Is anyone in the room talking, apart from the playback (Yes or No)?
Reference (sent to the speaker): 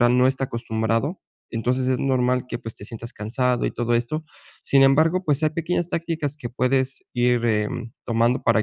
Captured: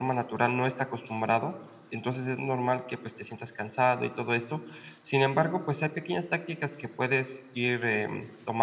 No